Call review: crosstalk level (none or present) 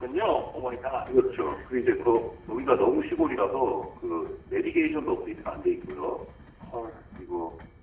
none